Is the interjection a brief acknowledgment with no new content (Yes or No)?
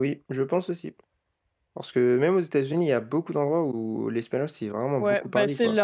No